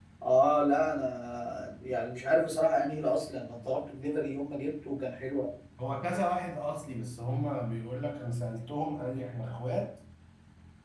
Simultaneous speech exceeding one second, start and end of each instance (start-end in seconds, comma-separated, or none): none